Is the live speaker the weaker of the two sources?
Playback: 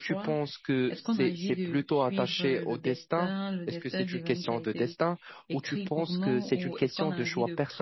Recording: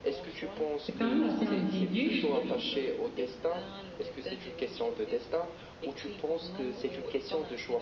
No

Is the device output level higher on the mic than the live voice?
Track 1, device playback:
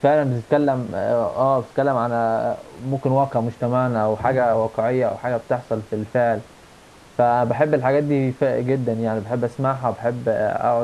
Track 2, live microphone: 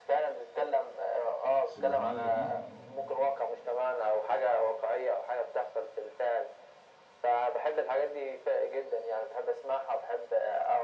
Yes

